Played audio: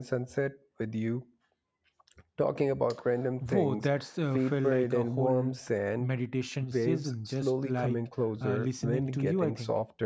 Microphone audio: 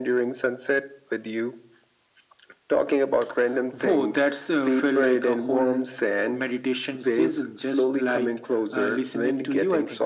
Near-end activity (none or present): none